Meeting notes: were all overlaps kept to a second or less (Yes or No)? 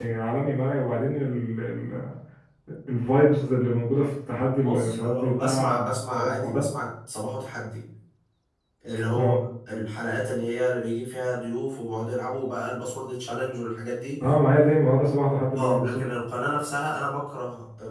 No